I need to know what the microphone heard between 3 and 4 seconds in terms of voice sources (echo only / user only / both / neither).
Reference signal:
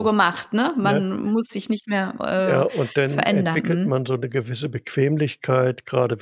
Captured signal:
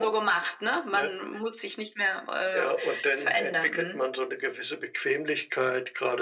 echo only